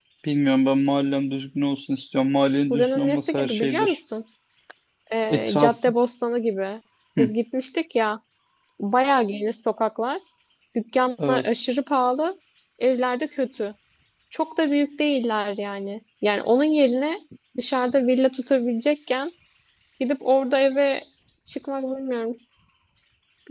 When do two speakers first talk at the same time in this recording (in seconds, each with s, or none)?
2.7 s